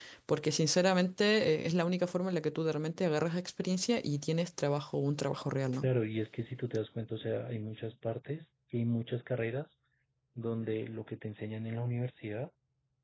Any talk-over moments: No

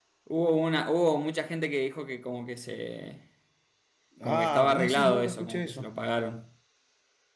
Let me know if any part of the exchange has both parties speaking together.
Yes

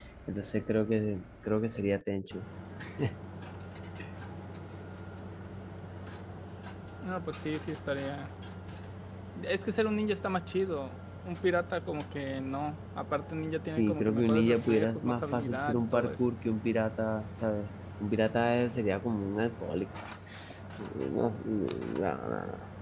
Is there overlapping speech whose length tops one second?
Yes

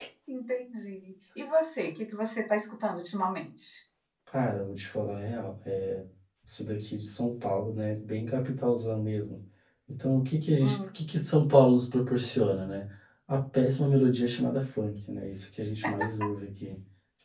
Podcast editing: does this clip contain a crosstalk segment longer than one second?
No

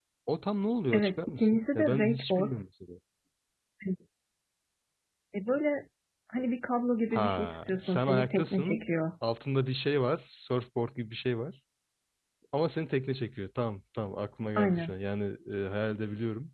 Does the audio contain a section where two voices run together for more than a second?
Yes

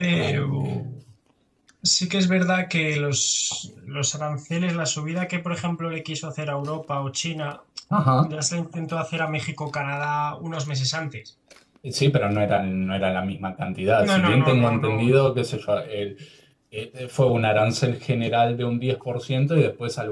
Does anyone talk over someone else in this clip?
Yes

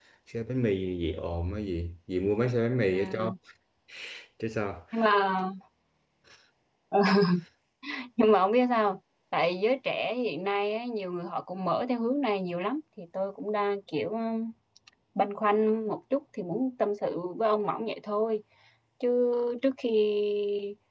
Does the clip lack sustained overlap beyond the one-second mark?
Yes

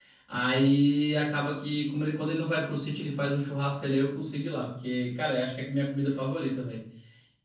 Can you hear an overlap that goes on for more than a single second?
No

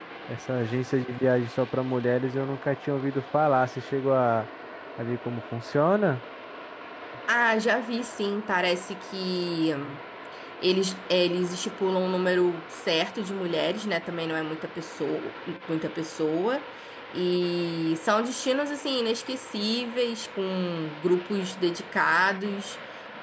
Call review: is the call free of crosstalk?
Yes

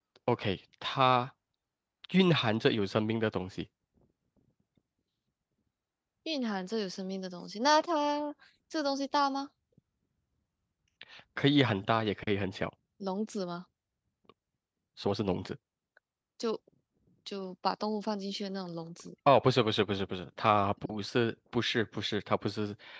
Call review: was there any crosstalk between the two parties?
No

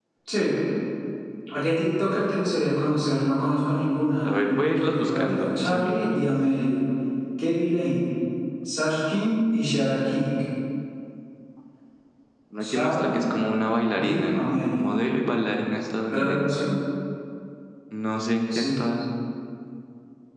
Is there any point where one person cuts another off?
Yes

